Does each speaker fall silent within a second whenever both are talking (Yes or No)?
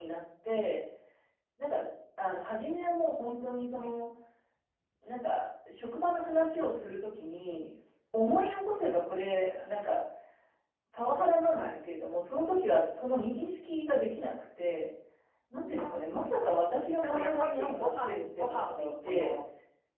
No